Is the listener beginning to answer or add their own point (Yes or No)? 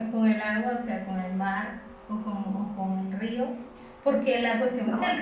No